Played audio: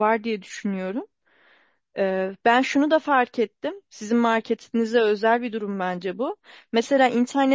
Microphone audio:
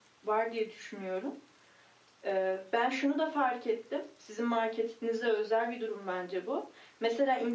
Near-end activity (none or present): none